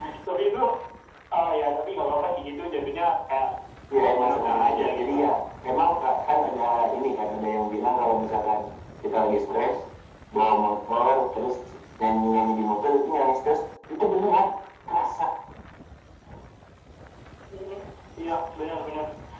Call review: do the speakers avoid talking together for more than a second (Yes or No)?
No